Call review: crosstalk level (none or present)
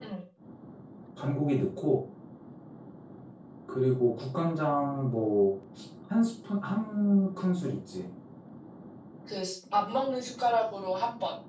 none